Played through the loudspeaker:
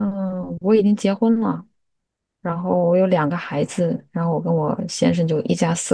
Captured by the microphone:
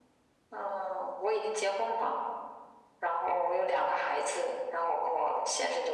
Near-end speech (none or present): none